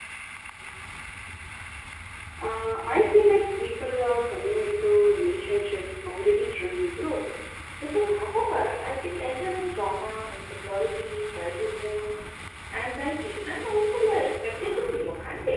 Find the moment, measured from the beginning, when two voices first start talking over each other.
none

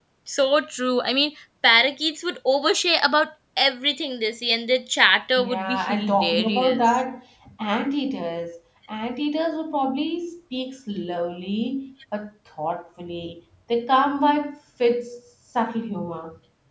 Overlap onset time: 5.4 s

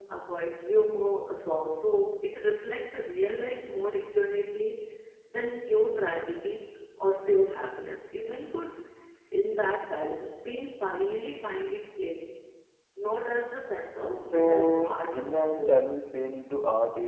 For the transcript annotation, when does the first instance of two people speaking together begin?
14.3 s

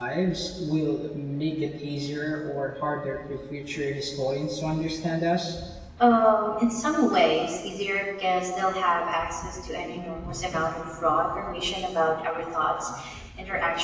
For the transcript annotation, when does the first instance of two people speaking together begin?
none

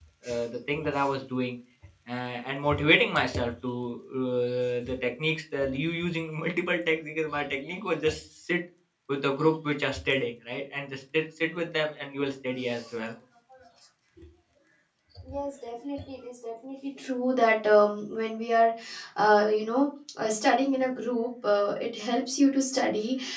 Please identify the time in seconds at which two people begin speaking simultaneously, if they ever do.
none

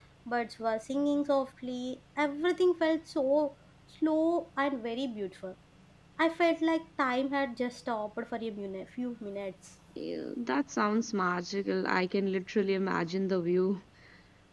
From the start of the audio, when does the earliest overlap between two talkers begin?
none

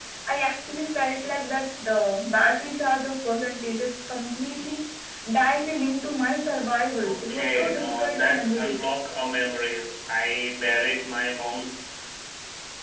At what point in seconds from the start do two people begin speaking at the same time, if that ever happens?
6.8 s

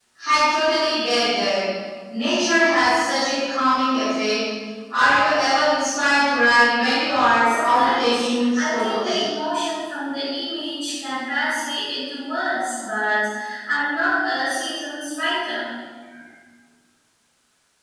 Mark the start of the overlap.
7.4 s

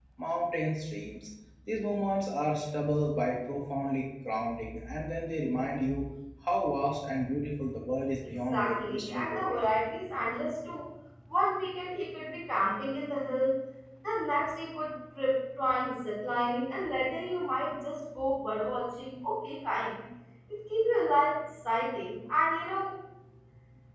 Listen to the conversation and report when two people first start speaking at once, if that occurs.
8.5 s

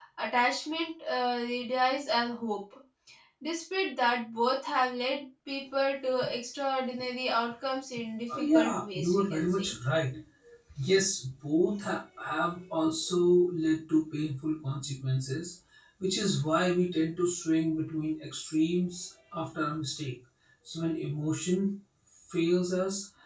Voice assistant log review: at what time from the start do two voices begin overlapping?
8.3 s

